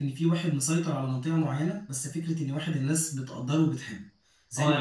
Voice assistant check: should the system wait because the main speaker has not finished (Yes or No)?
No